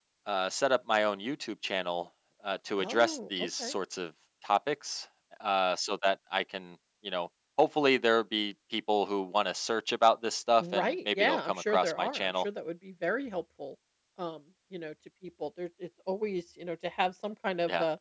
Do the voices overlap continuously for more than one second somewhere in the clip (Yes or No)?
Yes